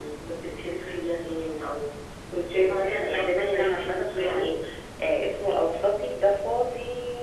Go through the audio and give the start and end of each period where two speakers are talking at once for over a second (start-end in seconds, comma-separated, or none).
2.6-4.5